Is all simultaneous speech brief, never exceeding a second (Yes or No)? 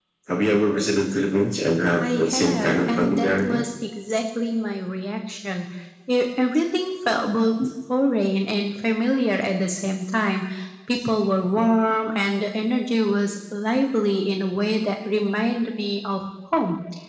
No